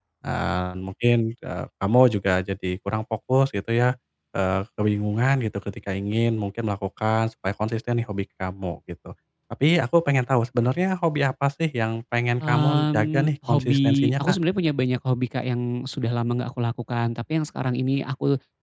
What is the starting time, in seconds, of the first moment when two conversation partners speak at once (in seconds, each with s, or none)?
12.4 s